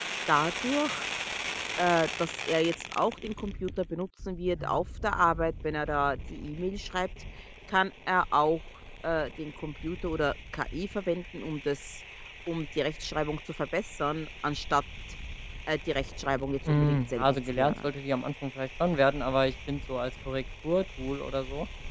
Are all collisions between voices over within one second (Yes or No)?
No